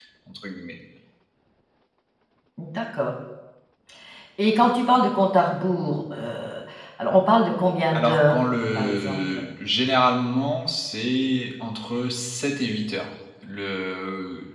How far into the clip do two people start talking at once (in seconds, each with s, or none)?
7.9 s